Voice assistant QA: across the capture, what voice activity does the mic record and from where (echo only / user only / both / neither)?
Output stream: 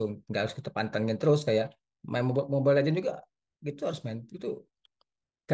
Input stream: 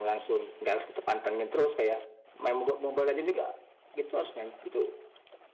echo only